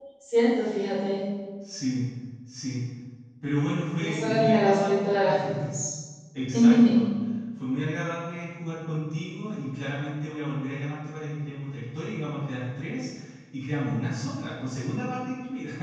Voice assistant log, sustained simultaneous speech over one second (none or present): present